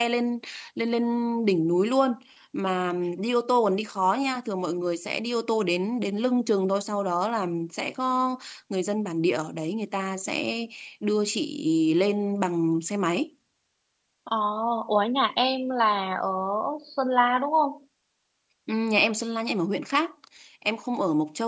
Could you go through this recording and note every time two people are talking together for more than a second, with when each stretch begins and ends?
none

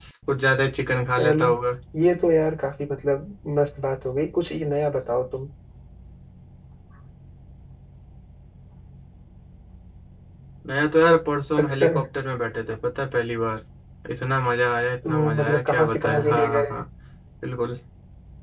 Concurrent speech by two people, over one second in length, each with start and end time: 15.1-16.8

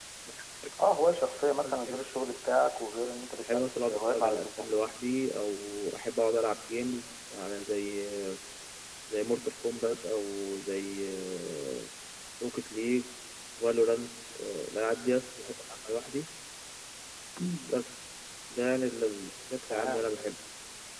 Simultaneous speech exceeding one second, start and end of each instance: 3.4-4.7

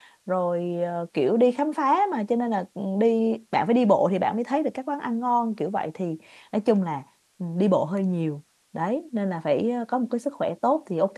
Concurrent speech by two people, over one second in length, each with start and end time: none

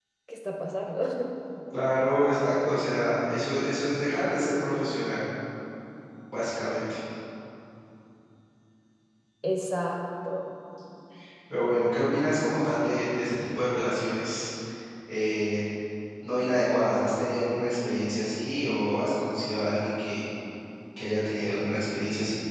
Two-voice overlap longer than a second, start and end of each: none

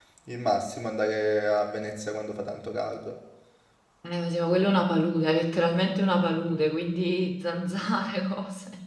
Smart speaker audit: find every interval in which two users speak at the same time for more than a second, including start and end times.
none

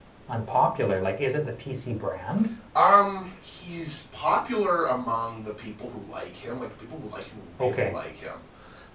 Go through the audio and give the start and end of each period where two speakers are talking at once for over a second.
none

